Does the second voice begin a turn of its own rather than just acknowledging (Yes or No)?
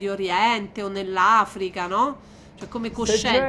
Yes